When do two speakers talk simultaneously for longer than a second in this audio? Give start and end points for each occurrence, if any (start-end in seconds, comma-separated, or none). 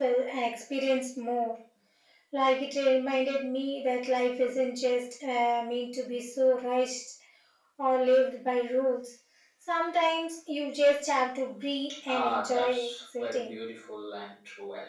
12.1-13.6